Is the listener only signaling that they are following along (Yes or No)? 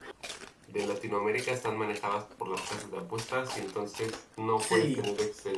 Yes